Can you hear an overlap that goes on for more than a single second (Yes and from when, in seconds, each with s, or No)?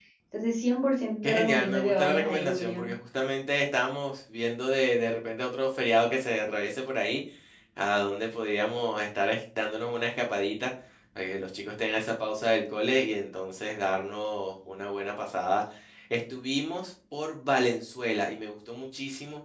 Yes, from 1.2 s